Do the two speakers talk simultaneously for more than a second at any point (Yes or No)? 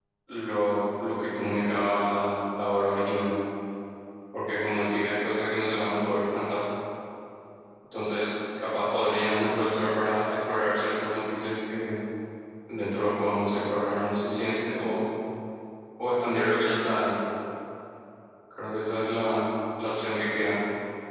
No